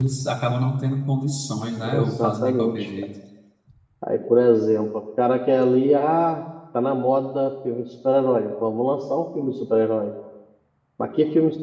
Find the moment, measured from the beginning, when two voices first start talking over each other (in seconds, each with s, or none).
1.8 s